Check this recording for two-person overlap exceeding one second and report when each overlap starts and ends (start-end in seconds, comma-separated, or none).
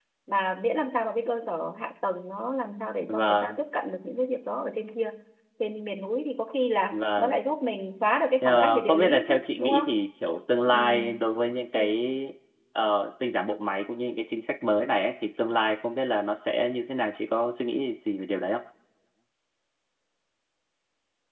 8.4-9.9